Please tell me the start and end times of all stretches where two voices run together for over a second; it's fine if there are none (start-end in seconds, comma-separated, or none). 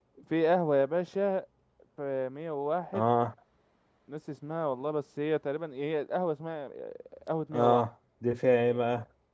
none